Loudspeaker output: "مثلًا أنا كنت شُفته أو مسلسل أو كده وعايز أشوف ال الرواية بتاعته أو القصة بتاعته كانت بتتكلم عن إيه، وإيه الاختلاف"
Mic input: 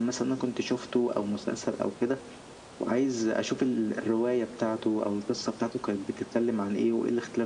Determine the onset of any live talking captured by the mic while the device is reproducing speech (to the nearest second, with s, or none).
none